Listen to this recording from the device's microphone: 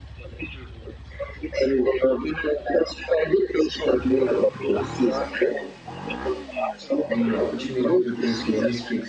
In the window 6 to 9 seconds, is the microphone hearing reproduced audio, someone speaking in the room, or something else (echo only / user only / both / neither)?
both